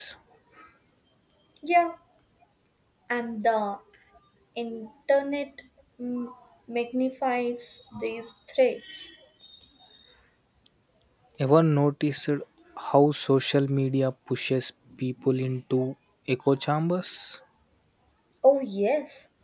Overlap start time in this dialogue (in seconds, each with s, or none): none